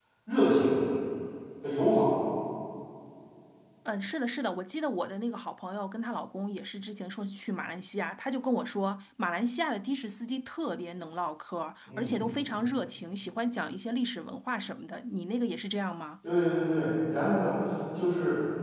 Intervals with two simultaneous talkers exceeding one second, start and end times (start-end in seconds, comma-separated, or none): none